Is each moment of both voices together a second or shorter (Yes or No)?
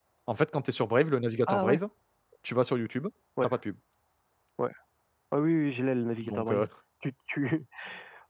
Yes